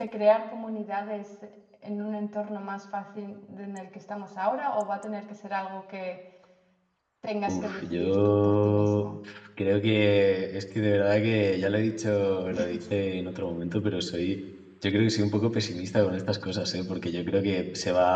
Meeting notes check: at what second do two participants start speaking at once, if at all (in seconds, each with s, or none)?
7.5 s